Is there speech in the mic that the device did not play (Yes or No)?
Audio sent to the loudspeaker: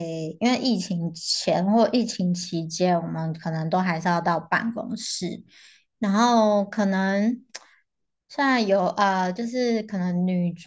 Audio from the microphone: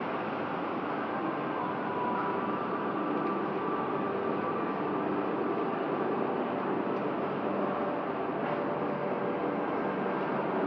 No